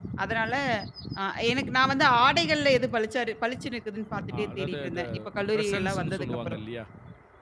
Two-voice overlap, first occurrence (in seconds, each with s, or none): 4.3 s